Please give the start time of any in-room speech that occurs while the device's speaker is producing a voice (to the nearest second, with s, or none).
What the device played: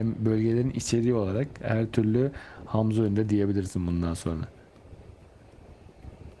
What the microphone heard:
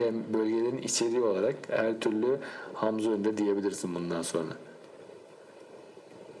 none